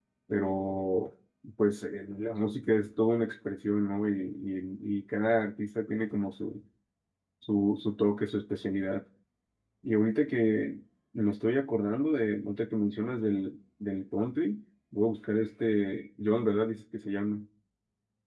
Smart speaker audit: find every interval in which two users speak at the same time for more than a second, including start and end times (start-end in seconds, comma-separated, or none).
none